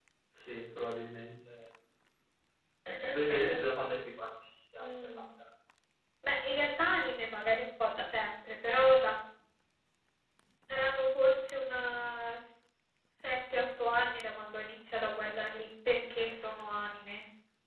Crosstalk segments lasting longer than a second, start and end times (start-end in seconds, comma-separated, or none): none